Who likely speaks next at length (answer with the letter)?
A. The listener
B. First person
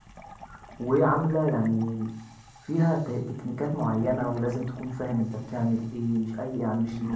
B